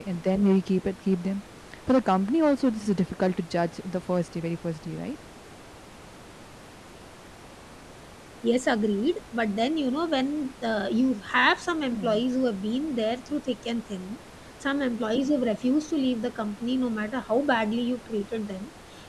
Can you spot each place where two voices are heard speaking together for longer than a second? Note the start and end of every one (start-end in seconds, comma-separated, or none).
none